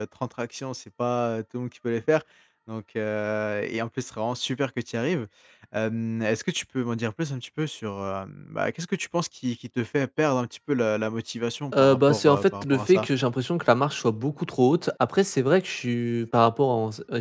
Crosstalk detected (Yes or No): Yes